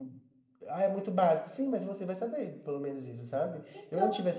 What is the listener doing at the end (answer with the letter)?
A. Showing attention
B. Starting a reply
A